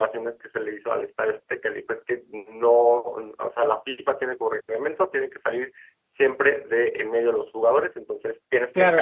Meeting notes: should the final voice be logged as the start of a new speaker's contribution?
Yes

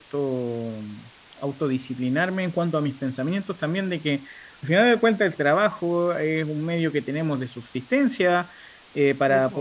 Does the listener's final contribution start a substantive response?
No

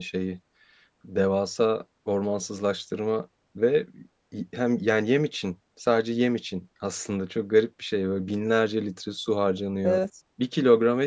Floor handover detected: No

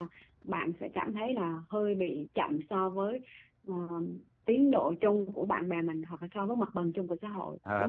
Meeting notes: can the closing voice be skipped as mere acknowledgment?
No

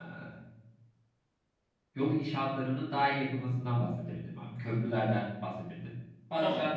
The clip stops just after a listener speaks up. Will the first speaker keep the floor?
Yes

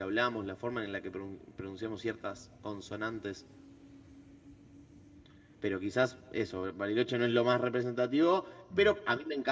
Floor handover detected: No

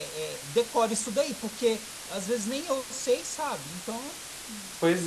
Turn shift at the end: Yes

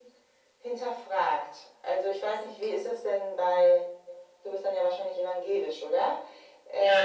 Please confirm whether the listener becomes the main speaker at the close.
Yes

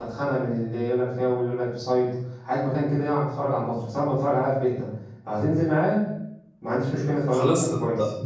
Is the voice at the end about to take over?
Yes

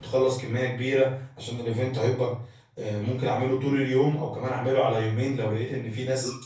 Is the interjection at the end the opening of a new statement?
Yes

